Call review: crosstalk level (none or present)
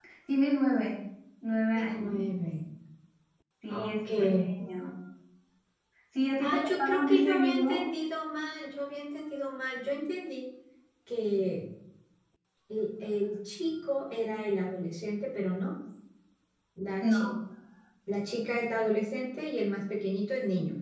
present